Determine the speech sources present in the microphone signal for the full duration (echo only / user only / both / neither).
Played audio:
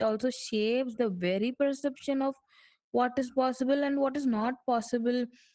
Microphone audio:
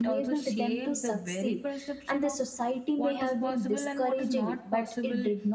both